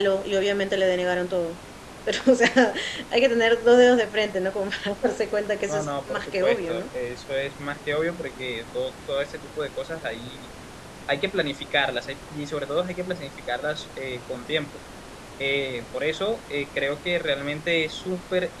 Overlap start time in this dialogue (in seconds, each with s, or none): 5.7 s